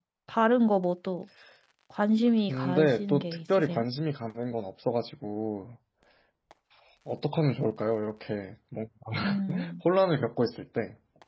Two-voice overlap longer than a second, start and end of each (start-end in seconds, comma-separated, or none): 2.5-3.8